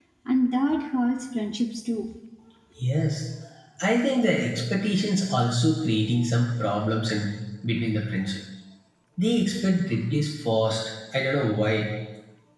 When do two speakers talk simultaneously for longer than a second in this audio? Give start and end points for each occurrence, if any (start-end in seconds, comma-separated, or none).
none